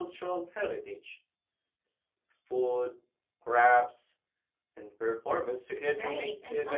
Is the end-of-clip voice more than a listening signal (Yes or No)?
Yes